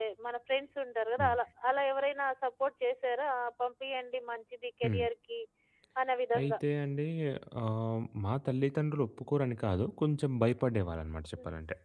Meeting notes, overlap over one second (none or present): none